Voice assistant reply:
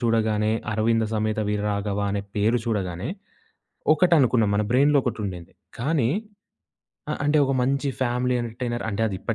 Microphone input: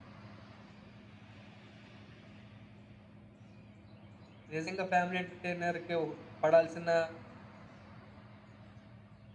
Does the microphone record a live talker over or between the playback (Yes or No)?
Yes